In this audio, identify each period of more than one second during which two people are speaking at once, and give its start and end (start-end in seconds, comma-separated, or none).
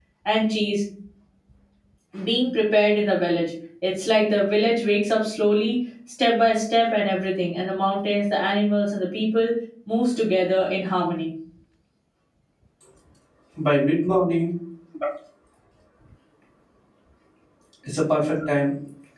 none